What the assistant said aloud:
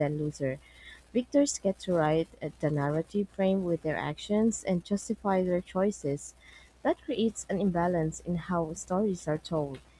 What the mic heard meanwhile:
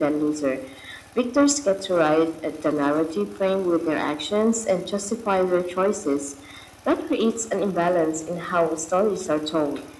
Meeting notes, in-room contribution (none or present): none